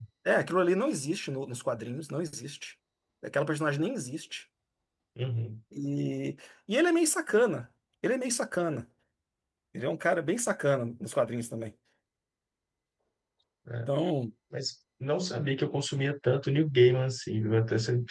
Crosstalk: none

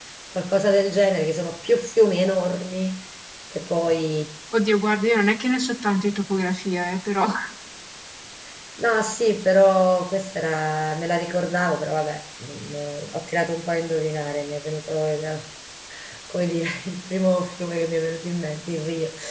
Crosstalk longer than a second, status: none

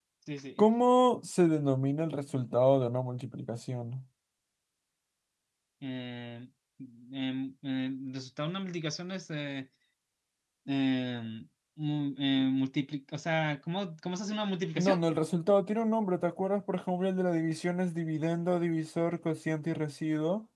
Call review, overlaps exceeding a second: none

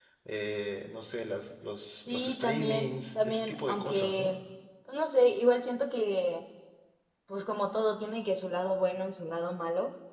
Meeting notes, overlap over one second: present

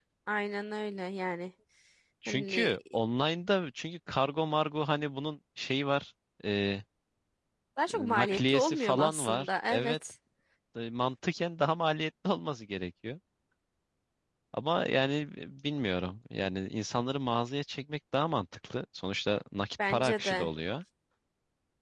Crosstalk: present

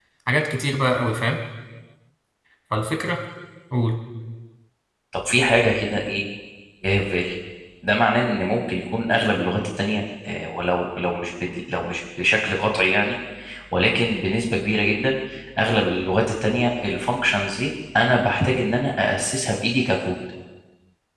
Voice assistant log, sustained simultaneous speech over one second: none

